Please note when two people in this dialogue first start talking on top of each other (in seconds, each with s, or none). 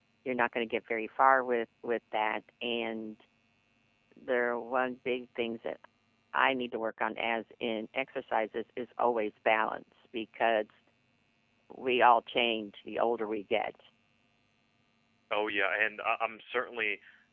none